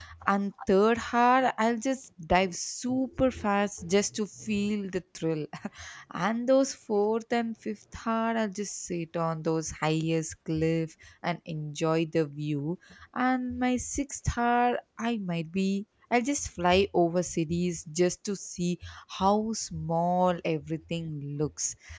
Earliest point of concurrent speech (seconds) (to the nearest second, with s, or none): none